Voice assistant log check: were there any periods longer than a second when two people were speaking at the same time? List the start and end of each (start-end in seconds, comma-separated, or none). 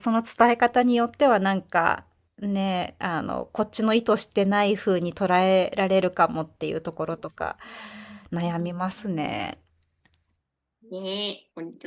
none